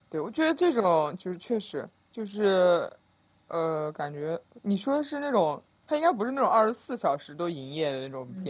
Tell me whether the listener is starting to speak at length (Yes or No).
Yes